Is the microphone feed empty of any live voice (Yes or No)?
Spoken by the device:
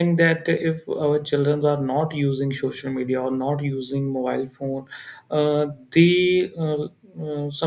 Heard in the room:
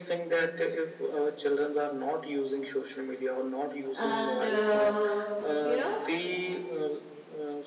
No